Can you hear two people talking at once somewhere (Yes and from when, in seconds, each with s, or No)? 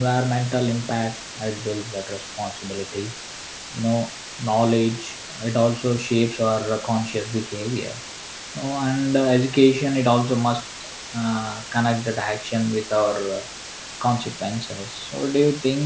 No